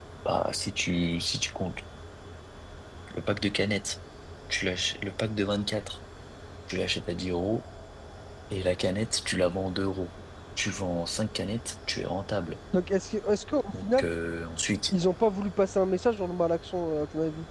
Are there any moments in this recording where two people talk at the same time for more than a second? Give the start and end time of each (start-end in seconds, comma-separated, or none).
none